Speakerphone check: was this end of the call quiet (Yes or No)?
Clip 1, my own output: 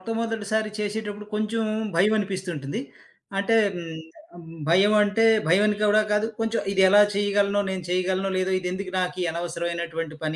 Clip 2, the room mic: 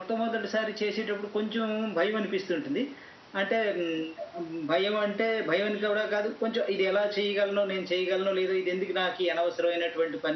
Yes